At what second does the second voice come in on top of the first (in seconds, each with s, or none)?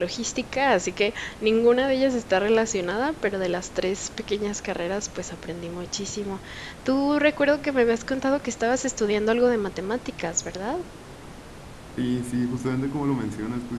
none